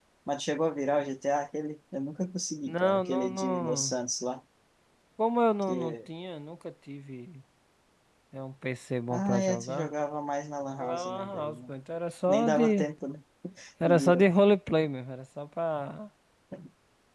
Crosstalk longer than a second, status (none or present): present